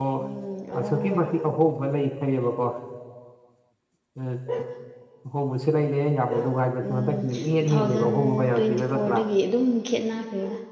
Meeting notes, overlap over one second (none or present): present